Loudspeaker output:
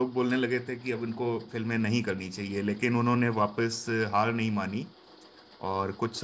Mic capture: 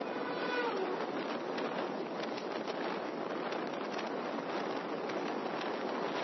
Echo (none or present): none